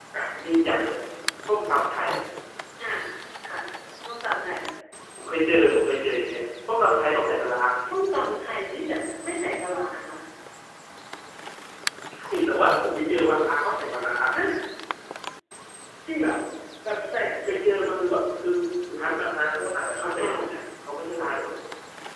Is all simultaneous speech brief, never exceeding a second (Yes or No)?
Yes